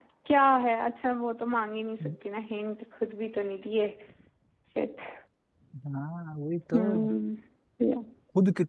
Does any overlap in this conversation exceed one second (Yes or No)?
No